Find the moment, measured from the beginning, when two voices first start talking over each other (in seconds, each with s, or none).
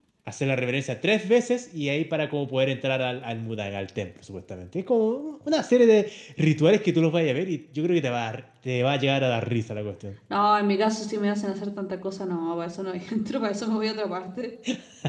none